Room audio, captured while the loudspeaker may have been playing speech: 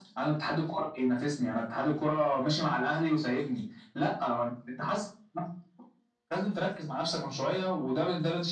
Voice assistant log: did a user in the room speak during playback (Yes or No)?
No